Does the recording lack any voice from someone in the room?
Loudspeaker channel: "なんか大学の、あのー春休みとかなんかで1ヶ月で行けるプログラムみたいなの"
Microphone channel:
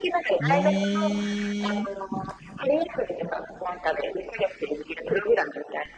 No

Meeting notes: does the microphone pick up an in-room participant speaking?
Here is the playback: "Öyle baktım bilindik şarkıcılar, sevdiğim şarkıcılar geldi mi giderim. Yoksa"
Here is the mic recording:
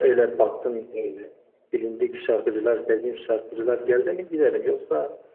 Yes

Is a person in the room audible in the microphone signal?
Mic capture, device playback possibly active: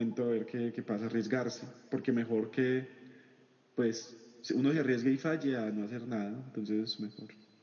No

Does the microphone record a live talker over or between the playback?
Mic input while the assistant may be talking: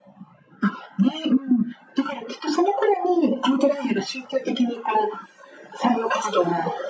No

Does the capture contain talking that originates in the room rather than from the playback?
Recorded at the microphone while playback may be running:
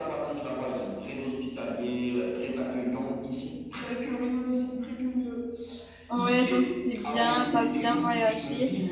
Yes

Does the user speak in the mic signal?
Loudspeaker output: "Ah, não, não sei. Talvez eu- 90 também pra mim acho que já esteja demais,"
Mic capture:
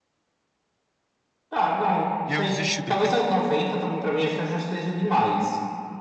Yes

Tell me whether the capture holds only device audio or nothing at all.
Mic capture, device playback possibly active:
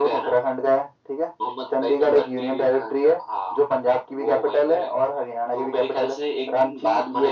Yes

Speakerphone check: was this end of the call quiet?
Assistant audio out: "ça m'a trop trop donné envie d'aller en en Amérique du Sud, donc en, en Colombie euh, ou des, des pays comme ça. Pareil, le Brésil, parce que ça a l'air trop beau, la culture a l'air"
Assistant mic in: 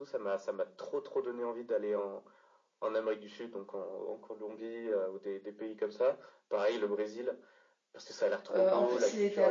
No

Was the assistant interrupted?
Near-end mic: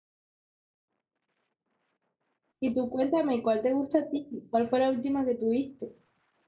Yes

